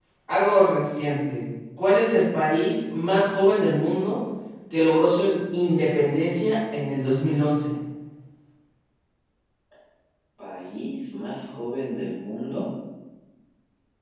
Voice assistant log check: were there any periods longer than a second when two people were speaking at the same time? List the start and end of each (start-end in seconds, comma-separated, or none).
none